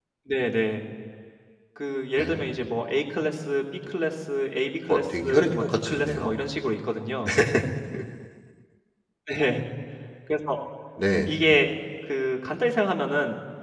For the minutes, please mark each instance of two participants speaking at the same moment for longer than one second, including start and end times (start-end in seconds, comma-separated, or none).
4.9-6.3